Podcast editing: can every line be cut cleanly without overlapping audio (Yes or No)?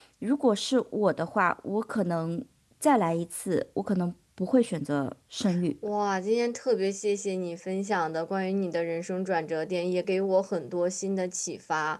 Yes